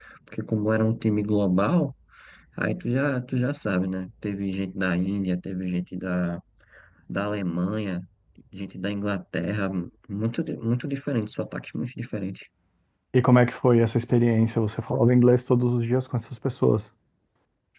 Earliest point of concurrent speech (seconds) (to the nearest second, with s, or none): none